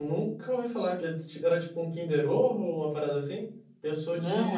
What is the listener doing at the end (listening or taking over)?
listening